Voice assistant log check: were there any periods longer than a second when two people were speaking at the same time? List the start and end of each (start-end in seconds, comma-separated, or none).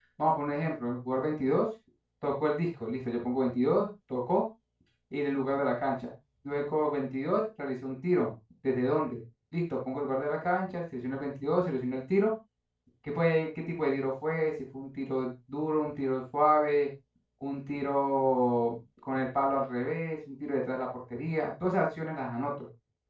none